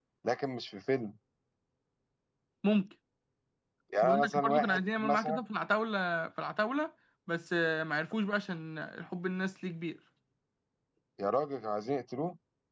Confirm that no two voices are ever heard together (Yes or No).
No